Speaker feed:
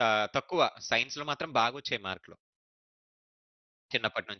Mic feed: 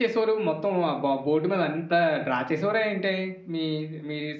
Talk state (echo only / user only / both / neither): user only